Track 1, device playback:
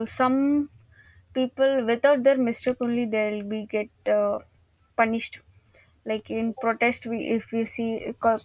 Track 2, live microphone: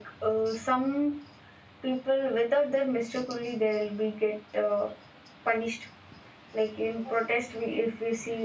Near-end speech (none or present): none